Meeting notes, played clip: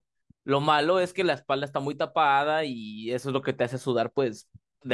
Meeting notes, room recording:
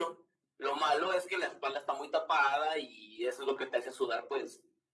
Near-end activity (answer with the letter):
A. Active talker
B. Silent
B